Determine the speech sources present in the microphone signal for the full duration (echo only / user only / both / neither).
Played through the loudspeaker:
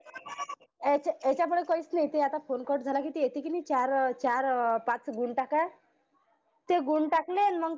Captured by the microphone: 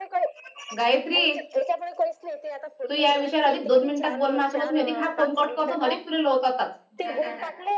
both